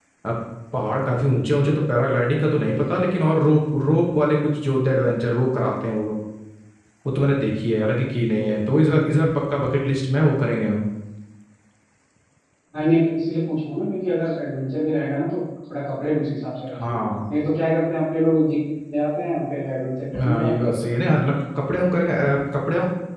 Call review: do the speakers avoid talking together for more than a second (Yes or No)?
Yes